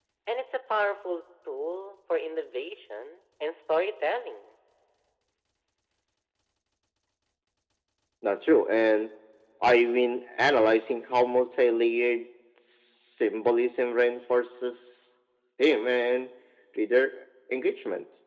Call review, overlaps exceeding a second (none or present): none